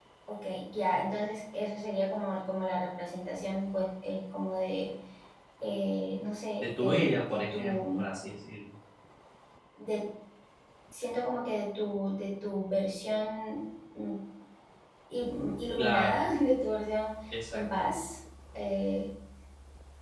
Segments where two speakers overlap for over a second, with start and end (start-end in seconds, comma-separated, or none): 6.6-8.1